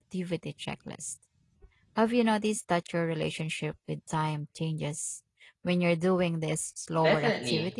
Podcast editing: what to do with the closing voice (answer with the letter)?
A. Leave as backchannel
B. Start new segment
B